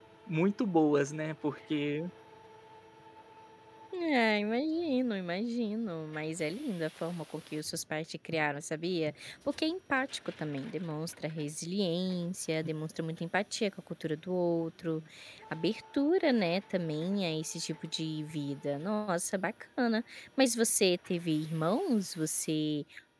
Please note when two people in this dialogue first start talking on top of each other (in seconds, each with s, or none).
none